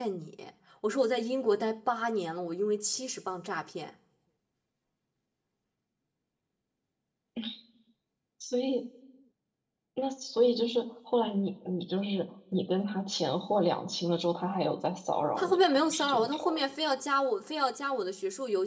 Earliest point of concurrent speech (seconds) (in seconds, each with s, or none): 15.4 s